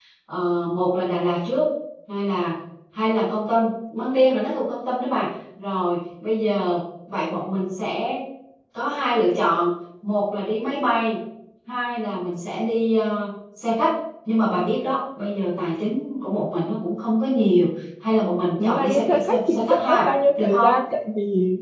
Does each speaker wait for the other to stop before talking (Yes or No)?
No